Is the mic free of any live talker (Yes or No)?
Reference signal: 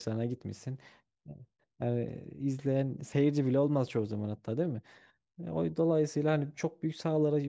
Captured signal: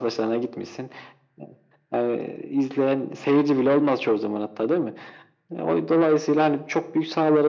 Yes